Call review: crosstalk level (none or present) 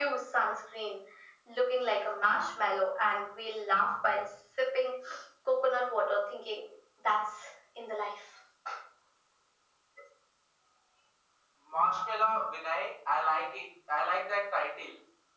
none